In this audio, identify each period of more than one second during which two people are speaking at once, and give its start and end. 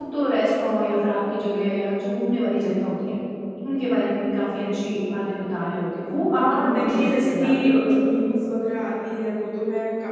6.4-7.9

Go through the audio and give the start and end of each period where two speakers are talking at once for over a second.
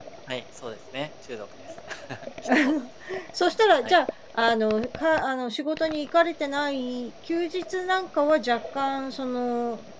none

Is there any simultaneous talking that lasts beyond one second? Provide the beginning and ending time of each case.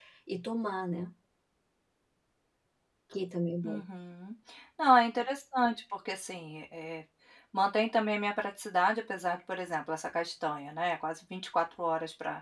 none

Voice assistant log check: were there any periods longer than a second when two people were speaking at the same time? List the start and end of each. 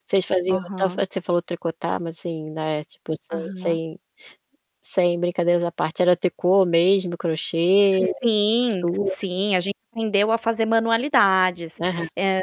none

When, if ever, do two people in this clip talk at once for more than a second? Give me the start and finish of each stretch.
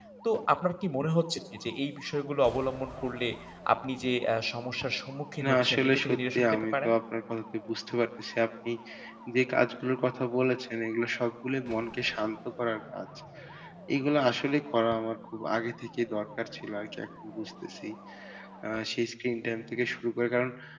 5.4-6.9

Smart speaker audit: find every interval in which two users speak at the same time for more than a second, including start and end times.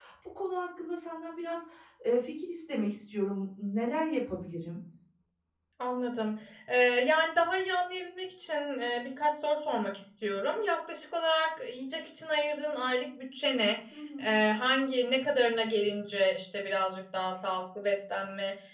none

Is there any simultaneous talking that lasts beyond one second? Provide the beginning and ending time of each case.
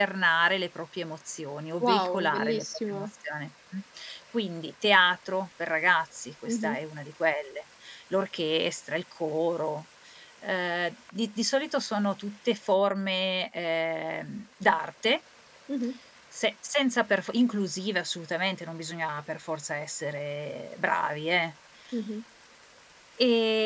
1.8-3.1

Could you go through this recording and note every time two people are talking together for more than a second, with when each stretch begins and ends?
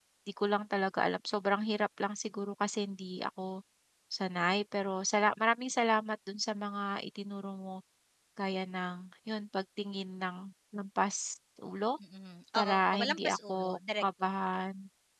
12.5-14.0

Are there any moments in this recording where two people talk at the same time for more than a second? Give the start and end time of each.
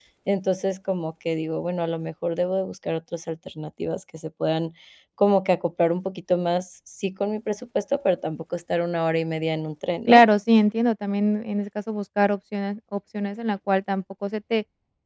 none

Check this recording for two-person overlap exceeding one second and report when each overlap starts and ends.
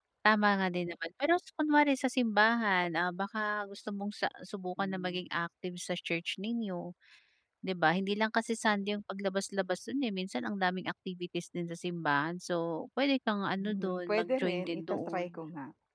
13.6-15.4

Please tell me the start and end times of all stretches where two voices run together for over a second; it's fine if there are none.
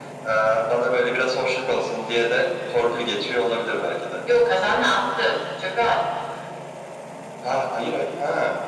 none

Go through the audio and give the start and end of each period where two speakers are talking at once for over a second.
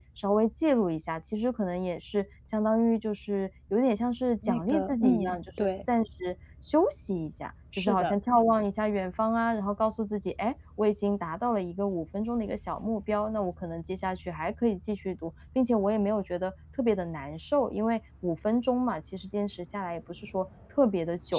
4.4-5.7

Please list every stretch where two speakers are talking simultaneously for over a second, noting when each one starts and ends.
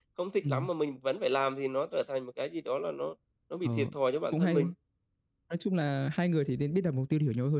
none

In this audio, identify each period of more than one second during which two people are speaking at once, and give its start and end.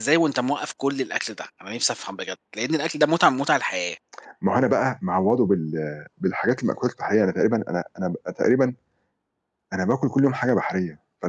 none

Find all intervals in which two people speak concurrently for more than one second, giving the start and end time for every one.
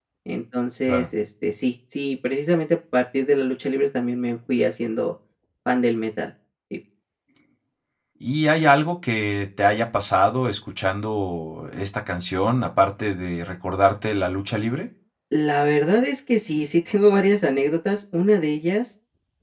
none

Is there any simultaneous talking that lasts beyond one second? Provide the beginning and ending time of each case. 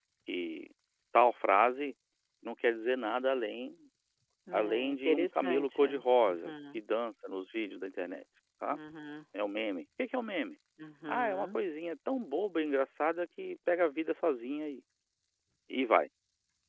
4.5-5.8

